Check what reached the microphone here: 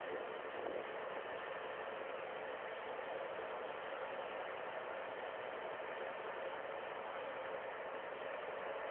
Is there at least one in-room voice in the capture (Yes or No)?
No